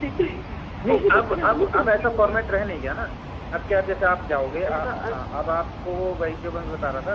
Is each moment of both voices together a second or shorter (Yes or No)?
No